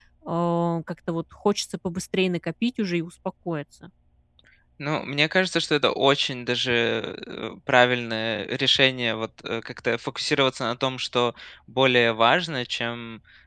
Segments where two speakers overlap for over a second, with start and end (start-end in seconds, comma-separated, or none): none